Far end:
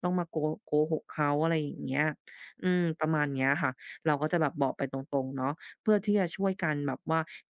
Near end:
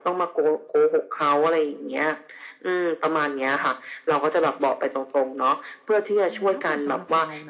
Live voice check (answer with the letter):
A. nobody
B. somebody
B